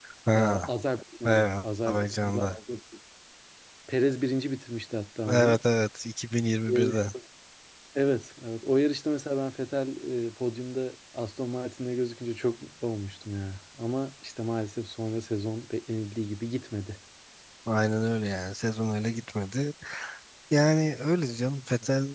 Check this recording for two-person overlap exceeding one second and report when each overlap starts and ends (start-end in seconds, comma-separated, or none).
1.2-2.6